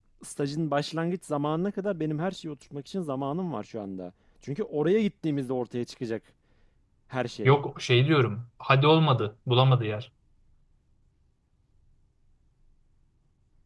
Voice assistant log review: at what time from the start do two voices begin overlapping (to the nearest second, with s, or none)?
none